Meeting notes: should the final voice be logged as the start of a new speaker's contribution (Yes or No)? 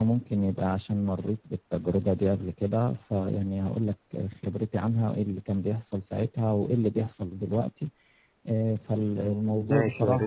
Yes